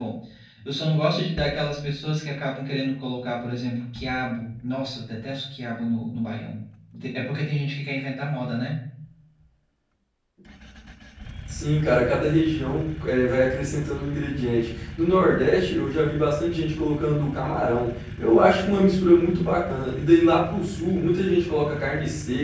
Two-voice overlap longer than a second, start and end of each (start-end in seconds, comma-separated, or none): none